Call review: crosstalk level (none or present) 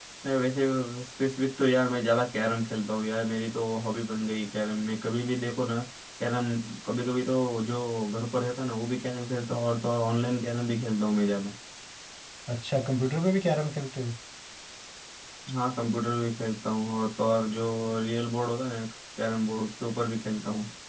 none